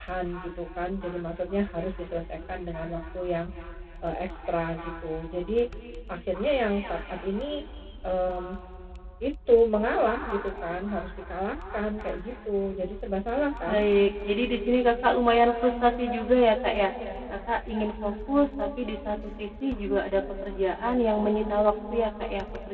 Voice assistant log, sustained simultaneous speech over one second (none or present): none